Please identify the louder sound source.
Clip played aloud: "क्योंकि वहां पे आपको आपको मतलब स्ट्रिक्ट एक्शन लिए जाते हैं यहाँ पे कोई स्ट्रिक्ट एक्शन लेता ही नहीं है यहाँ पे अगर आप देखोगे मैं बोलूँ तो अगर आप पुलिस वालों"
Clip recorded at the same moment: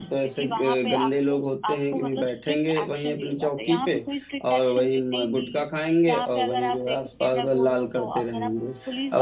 user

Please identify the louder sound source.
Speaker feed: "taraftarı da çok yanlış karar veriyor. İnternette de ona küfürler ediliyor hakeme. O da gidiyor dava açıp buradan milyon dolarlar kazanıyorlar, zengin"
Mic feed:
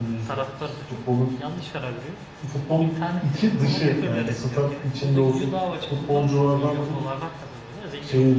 user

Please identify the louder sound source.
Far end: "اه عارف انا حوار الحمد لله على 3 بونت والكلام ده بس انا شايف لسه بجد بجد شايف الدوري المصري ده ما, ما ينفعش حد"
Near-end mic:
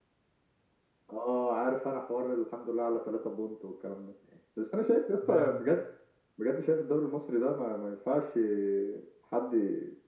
echo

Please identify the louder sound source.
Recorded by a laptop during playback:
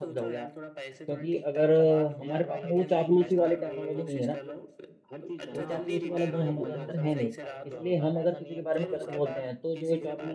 user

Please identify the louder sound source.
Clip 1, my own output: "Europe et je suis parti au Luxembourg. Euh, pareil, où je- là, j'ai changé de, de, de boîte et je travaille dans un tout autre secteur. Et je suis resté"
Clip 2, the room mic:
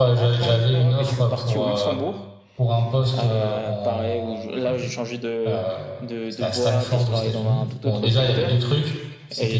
user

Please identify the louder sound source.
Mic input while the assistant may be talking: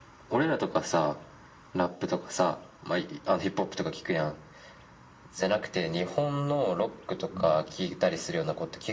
echo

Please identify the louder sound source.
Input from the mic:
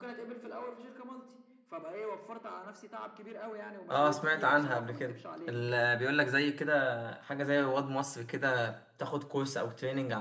user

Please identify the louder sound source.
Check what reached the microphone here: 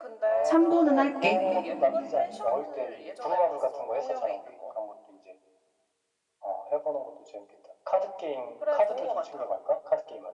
user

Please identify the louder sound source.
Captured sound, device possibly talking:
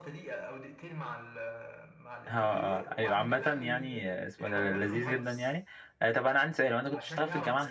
user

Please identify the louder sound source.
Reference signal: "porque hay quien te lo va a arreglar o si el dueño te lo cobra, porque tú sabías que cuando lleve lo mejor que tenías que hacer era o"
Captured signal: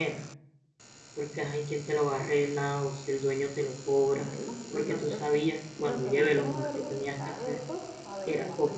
echo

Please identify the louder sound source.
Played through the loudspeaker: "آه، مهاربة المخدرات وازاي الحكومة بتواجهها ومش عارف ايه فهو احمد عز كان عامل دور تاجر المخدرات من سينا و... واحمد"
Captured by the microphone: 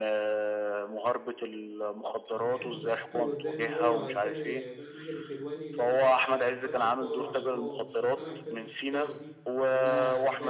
echo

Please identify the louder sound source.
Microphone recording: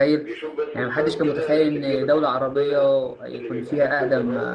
user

